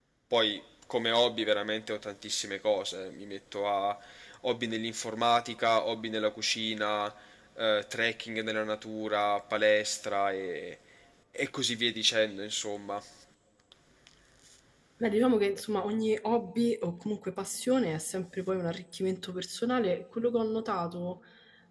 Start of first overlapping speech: none

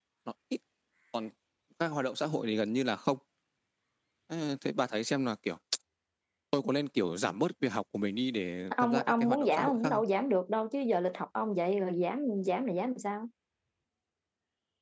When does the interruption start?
8.7 s

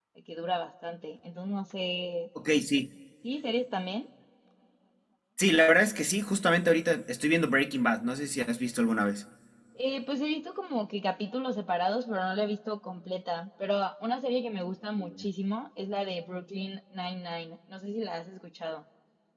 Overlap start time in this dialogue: none

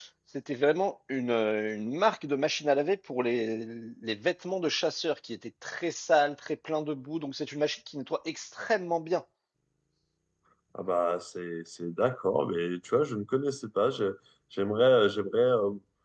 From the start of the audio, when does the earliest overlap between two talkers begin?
none

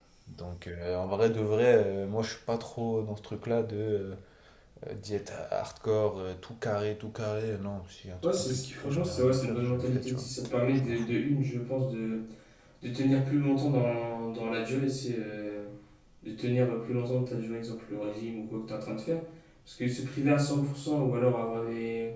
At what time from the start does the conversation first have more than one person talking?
8.2 s

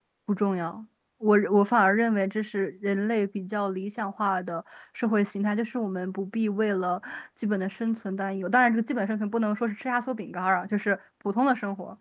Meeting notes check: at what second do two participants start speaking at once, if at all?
none

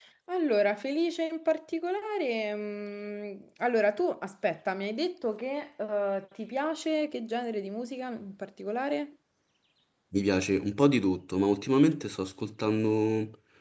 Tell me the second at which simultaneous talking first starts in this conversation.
none

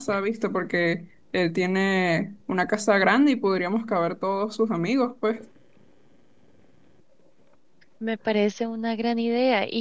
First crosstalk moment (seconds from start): none

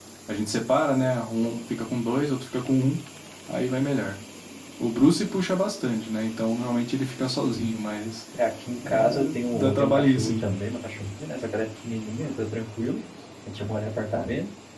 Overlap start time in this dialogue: 8.8 s

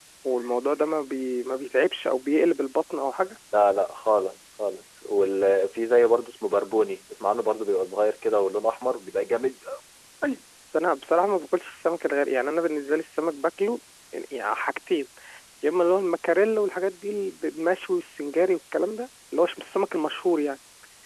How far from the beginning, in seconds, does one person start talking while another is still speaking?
none

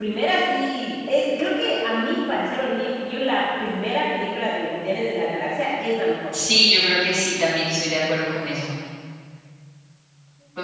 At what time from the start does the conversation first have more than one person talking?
none

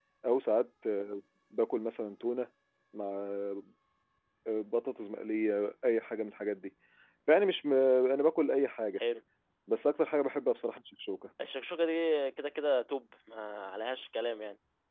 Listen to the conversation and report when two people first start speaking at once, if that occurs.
none

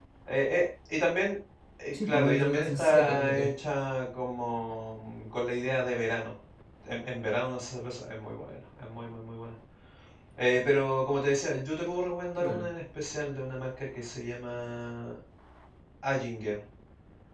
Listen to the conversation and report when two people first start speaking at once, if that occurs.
1.9 s

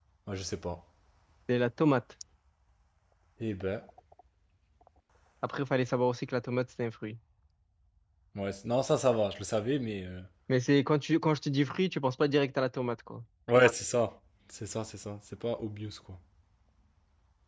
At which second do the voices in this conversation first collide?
none

